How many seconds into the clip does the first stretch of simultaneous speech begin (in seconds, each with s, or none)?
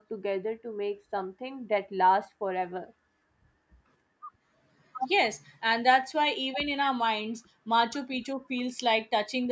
none